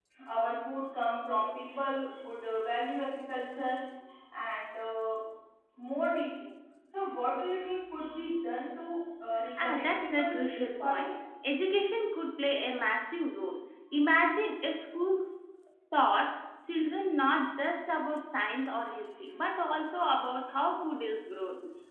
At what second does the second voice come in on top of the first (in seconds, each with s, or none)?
9.6 s